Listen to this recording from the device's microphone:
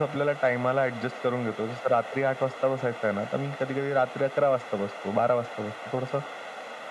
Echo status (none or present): present